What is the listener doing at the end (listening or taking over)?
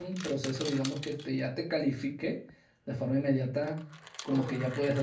listening